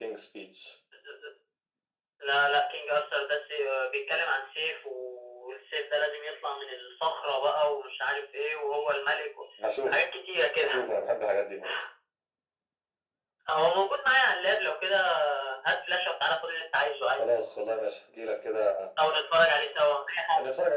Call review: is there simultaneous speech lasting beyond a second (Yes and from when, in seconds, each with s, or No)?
No